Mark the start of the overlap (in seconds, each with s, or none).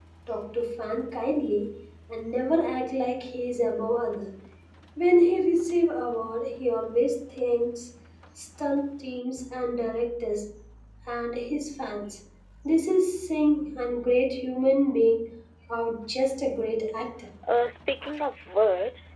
none